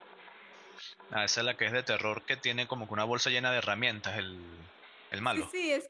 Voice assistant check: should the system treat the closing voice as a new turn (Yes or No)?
Yes